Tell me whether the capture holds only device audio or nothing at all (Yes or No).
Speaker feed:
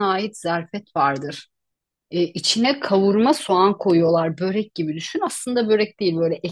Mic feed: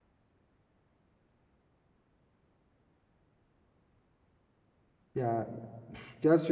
No